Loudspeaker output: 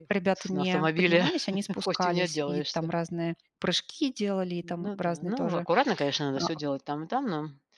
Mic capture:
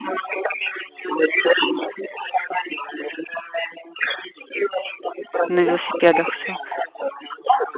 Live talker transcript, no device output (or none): На велосипедах всё.